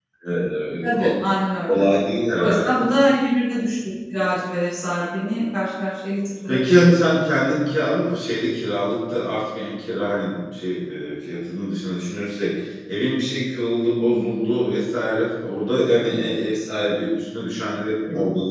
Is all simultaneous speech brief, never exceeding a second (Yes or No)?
Yes